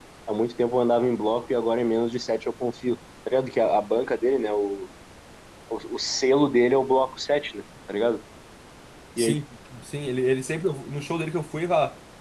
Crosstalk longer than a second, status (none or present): none